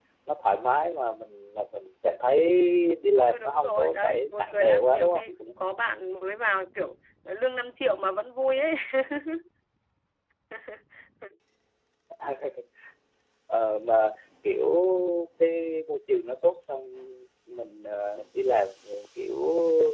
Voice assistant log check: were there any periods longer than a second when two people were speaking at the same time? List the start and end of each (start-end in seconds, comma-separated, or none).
3.2-5.3